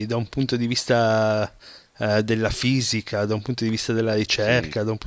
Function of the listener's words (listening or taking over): listening